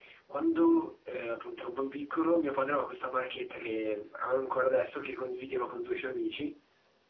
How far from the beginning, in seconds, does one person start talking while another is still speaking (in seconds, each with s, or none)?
none